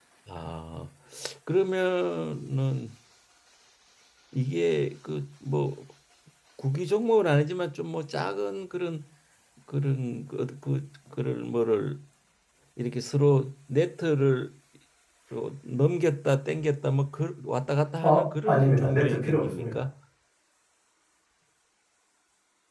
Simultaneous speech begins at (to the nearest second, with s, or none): 18 s